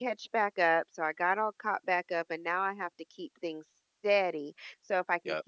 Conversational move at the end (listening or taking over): listening